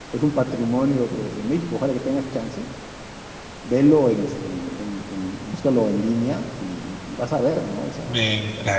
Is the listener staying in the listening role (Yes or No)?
No